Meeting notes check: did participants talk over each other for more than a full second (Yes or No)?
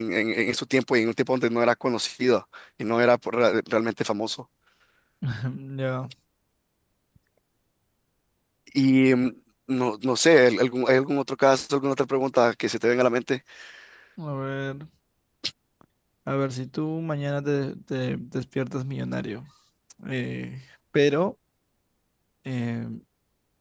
No